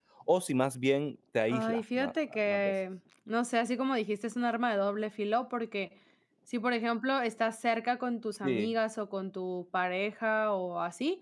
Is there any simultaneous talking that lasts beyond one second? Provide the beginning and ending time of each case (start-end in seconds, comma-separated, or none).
1.5-2.7